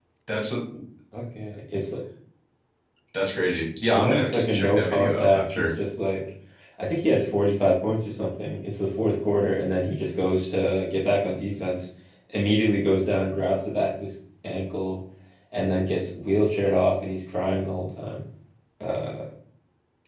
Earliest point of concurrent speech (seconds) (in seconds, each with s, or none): 3.9 s